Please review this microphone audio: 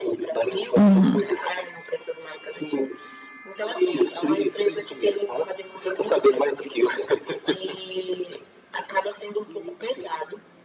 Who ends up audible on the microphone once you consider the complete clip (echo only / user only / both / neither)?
both